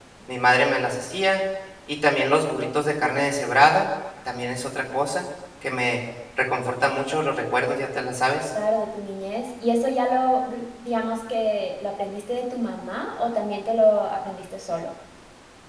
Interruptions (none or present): none